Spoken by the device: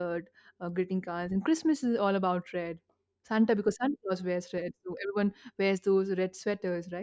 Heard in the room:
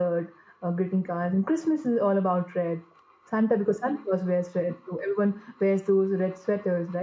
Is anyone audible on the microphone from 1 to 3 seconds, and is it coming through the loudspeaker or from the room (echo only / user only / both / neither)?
echo only